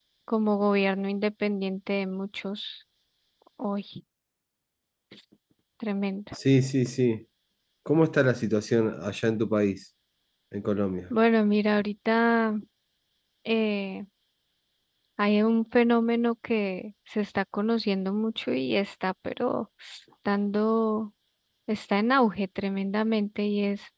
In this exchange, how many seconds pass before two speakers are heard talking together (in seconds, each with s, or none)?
none